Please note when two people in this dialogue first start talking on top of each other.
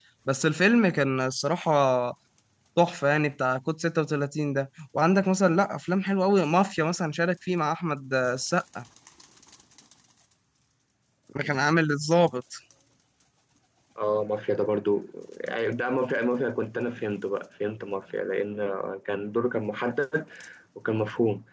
none

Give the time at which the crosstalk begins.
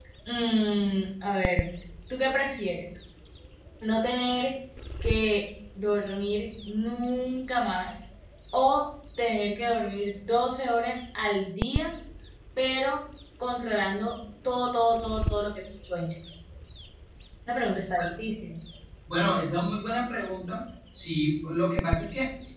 none

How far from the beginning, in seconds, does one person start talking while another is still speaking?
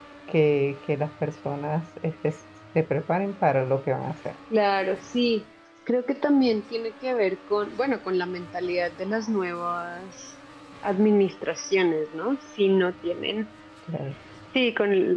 none

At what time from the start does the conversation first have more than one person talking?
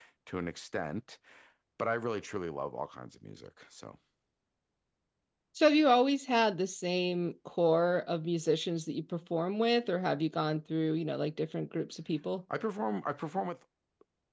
none

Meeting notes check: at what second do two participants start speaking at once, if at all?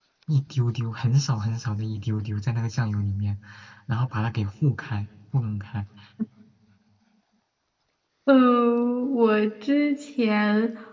none

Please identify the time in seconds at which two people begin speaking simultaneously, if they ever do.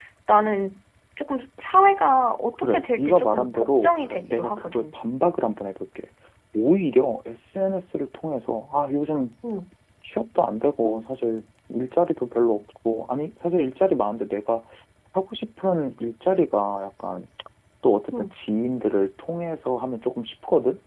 2.6 s

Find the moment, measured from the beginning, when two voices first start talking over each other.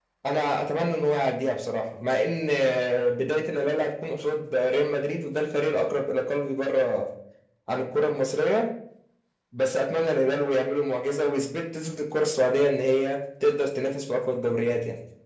none

